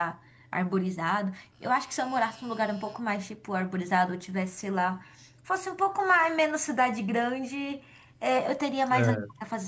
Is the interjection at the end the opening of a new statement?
No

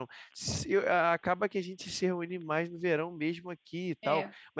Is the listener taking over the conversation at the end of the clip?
No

